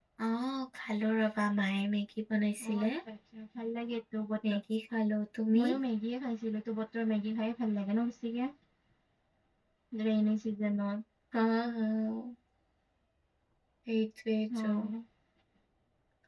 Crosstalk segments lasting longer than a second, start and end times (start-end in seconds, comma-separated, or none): none